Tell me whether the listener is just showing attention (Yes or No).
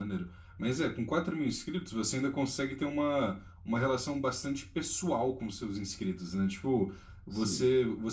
Yes